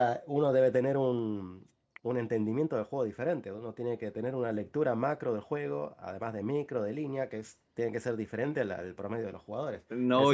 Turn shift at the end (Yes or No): Yes